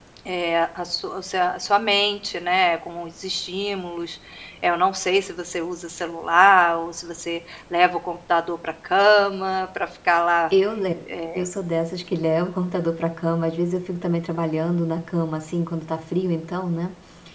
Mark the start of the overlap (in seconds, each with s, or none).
none